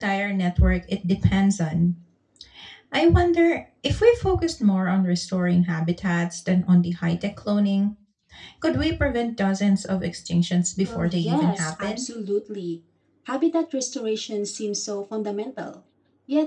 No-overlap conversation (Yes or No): No